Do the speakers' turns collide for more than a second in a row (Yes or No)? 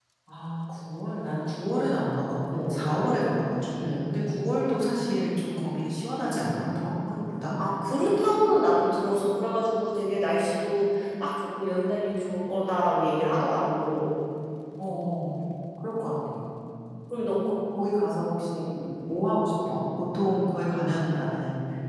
No